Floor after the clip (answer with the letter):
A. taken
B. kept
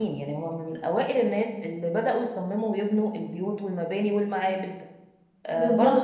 A